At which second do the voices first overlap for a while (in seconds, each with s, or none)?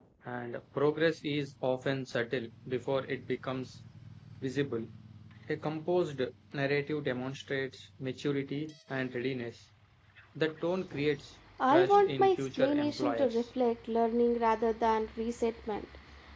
11.7 s